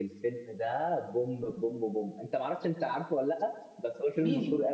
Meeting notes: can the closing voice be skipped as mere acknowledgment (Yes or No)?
No